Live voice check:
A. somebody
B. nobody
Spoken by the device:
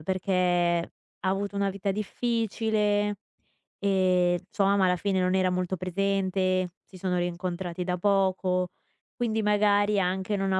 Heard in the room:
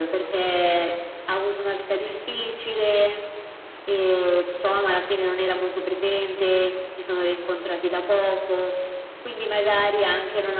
B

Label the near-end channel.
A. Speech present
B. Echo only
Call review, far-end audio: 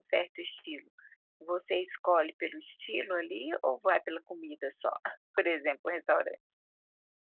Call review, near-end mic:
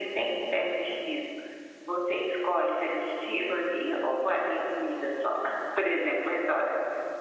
B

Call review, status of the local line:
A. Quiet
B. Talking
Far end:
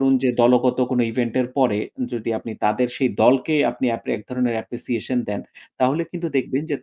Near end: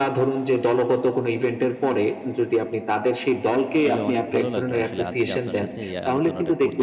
B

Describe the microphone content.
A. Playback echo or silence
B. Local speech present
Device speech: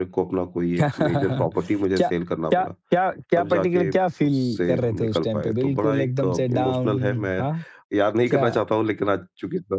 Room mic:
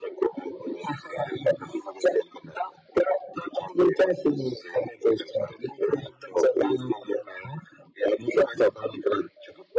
A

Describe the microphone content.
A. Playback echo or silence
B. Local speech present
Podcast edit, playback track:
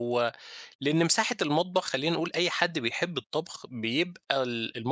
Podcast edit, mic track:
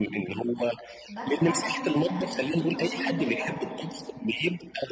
B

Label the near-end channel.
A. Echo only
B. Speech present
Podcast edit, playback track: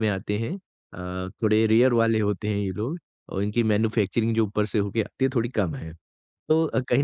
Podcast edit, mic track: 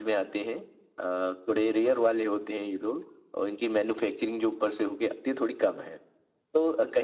A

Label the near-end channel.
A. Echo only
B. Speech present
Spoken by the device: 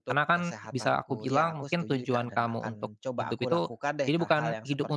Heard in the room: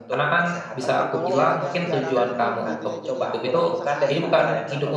B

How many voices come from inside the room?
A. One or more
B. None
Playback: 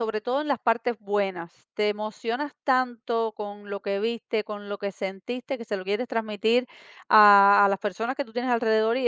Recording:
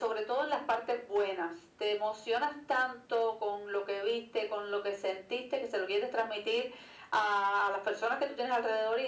B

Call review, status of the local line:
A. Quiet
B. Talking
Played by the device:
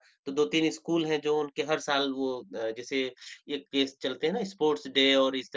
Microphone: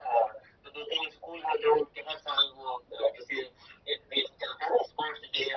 A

